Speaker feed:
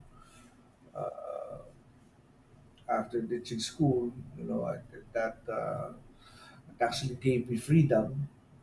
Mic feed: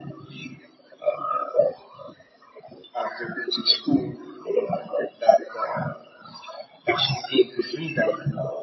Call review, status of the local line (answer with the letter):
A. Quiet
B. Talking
A